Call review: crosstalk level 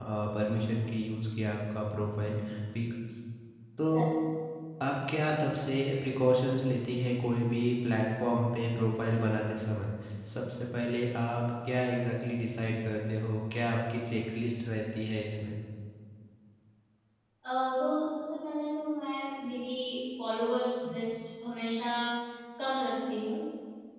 none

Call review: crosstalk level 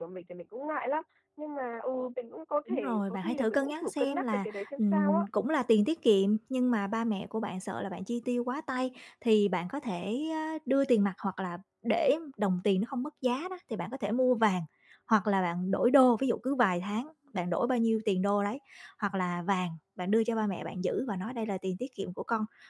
present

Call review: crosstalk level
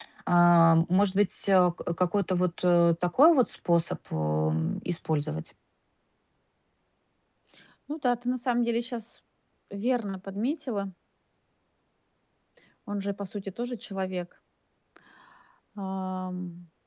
none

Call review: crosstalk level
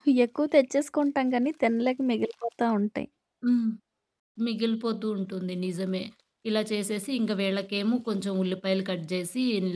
none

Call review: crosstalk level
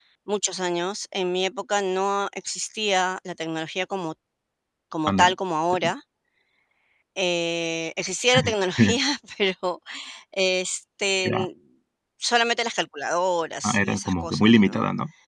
present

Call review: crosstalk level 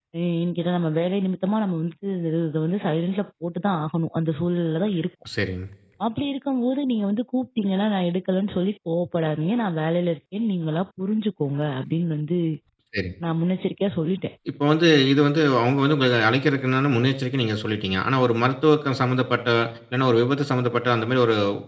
none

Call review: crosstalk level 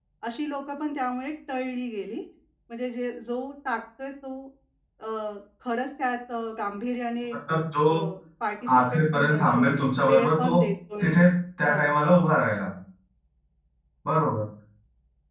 present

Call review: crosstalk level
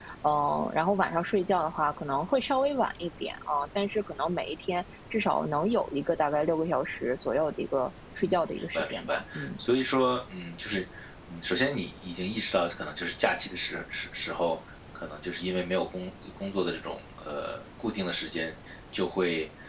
present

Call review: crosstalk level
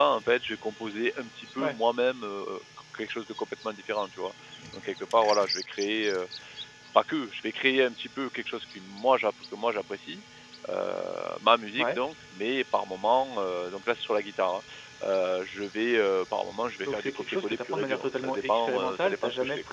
present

